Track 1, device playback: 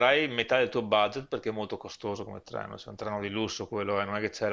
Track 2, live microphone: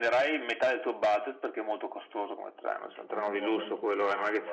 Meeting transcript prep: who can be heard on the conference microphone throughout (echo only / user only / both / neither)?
both